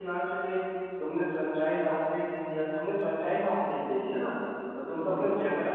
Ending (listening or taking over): listening